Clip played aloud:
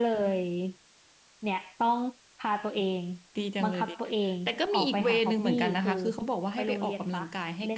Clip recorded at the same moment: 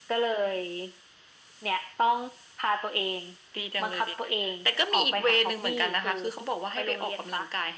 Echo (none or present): present